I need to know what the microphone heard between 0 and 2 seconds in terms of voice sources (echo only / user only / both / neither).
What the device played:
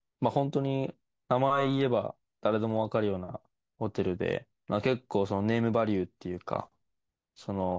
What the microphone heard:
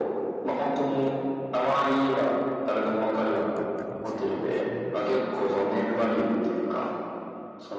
echo only